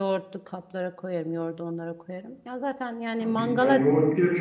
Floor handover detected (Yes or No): Yes